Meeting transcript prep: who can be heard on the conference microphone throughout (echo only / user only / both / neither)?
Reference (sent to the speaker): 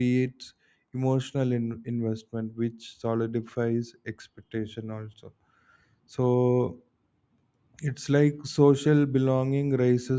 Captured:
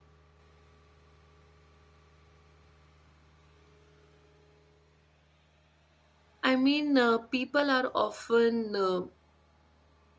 user only